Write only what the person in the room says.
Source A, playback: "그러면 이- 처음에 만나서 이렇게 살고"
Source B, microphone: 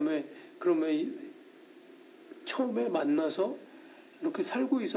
none

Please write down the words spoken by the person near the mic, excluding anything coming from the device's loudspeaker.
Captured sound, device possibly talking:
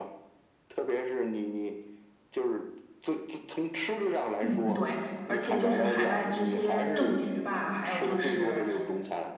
嗯，对，而且就是海外这些政局吧，还有就是，

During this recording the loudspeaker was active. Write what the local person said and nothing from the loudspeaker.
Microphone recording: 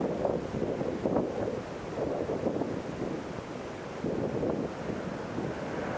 none

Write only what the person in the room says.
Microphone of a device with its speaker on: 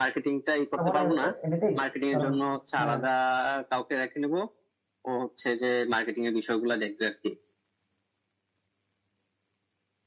পারবো না এ- এ- এমনিতেই কারণ হ্যাঁ

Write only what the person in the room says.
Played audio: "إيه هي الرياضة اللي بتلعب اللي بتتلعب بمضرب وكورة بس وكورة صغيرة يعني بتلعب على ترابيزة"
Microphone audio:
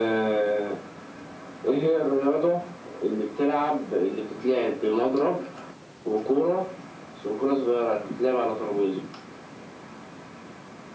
none

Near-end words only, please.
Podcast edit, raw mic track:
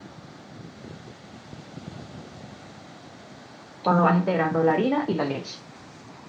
cuando vas integrando la harina y la leche.

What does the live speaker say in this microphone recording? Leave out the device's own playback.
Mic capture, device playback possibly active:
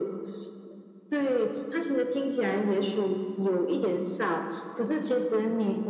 none

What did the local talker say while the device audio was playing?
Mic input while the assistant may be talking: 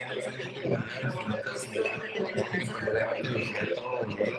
none

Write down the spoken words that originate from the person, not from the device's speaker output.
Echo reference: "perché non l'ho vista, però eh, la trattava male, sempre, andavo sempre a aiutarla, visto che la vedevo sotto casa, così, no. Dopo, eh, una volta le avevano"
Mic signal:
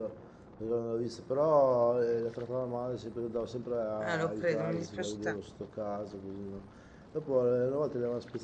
Ah, lo credo, mi dispiace

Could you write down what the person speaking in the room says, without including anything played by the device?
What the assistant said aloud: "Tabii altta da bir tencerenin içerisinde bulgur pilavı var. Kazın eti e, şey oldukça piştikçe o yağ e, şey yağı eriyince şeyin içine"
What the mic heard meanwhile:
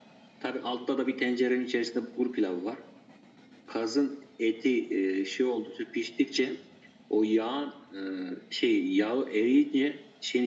none

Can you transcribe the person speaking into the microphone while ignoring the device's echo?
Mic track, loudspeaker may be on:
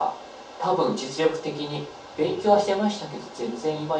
none

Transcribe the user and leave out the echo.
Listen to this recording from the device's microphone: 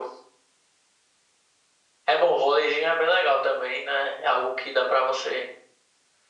none

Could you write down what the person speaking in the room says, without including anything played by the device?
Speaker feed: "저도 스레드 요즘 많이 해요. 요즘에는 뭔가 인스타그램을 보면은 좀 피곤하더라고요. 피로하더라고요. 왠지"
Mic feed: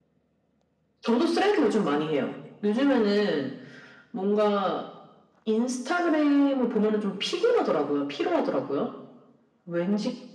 none

